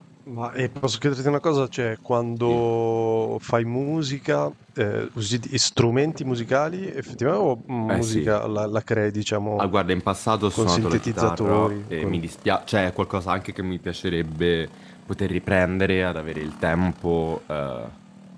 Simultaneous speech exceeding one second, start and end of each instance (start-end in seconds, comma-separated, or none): 10.5-12.2